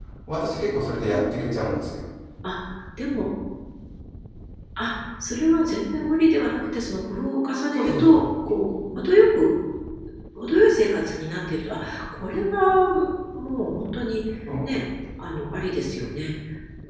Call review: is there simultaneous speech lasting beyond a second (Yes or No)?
No